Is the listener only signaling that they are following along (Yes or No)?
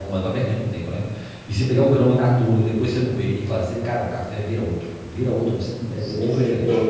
No